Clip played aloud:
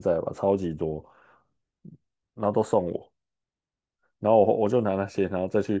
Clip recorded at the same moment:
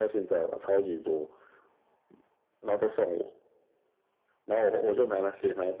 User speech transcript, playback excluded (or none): none